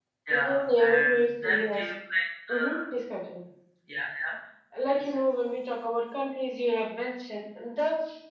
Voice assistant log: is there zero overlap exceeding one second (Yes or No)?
No